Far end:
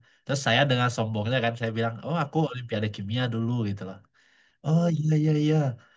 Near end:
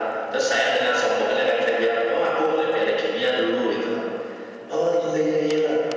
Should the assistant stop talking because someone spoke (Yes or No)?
No